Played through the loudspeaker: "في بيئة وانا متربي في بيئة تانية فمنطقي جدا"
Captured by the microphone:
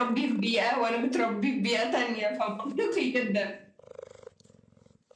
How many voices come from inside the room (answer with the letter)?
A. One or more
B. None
B